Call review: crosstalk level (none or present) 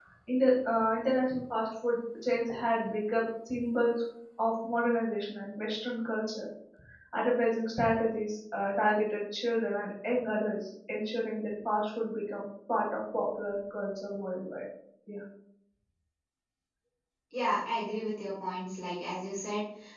none